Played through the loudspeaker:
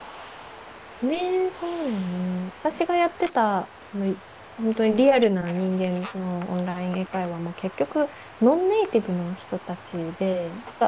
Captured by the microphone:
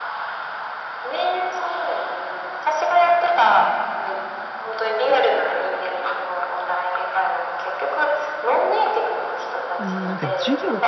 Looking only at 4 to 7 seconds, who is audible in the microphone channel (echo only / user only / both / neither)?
echo only